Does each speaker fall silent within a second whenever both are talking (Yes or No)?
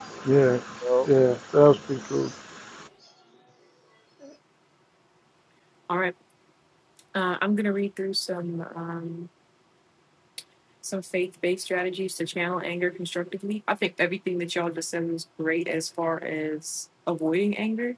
Yes